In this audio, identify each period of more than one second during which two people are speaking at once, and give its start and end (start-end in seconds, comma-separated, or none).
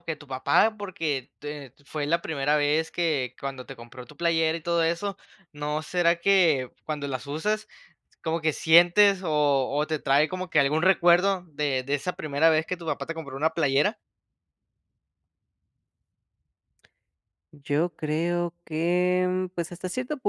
none